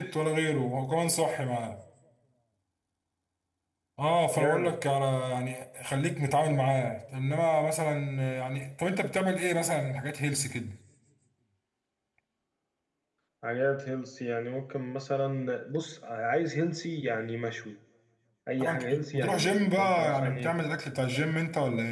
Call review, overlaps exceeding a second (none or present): present